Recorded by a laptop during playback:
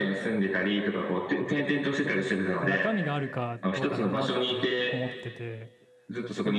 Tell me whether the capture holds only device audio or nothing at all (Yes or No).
No